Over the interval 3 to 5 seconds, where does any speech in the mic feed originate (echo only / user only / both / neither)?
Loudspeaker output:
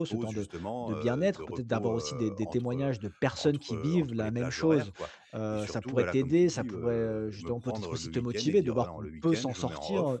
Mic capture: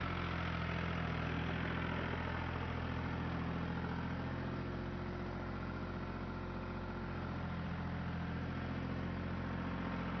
neither